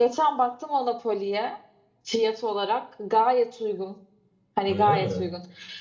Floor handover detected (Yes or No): No